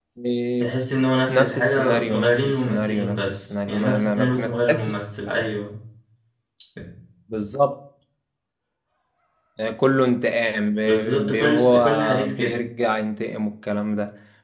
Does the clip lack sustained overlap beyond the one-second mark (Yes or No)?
No